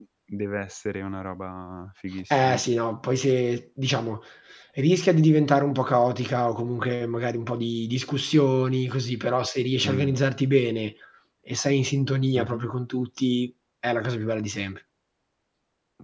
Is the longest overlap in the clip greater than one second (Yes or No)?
No